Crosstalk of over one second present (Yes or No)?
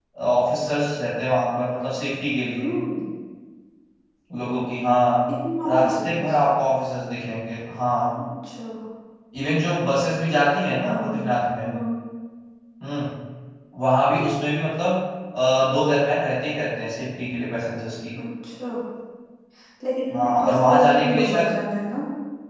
Yes